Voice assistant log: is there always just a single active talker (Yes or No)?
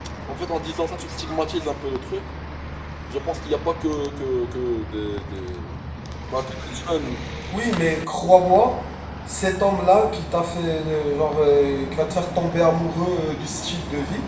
Yes